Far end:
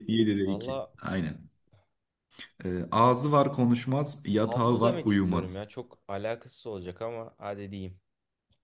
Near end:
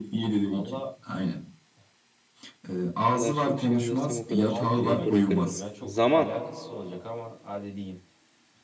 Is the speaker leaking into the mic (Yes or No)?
Yes